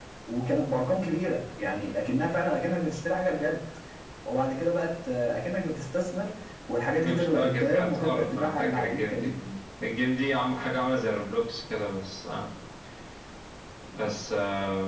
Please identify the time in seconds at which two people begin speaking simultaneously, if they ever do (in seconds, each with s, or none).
7.0 s